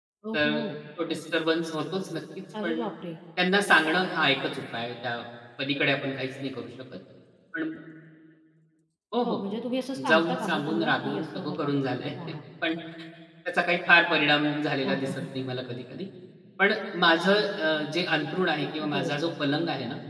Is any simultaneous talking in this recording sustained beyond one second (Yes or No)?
Yes